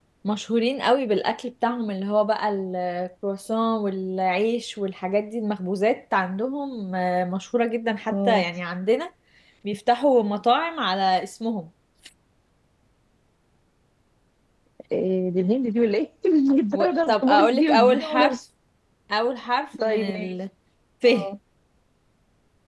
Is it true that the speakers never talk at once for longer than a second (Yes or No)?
No